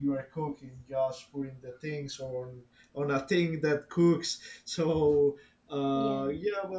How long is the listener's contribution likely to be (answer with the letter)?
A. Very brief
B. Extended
A